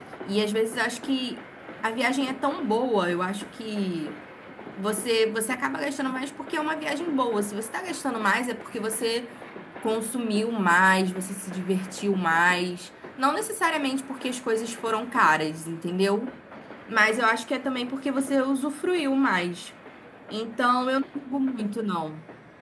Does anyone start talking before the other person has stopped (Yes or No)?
No